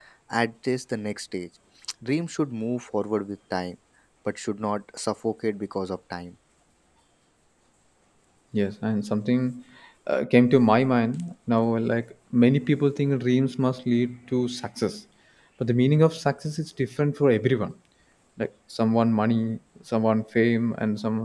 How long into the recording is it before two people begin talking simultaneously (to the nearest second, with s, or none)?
none